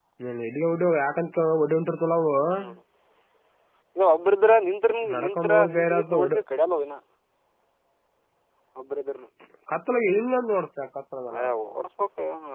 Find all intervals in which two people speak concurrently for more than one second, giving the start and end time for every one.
5.1-6.4

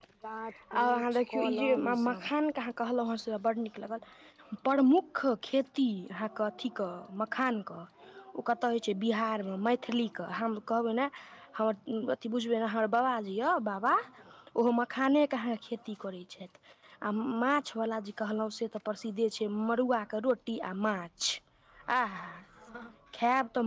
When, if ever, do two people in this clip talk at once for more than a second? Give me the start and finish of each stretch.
0.8-2.3

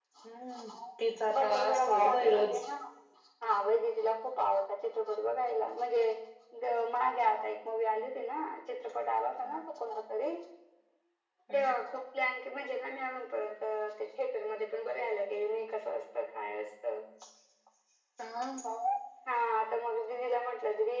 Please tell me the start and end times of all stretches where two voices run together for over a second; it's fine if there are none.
1.4-2.6

